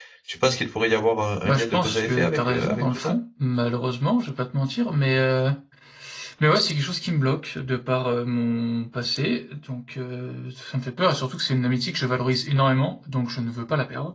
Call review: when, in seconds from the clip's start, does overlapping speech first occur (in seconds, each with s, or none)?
1.4 s